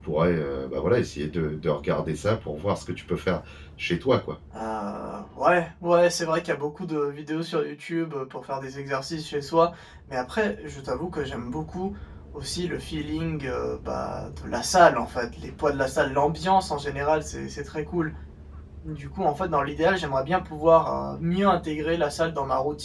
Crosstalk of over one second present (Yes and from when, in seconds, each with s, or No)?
No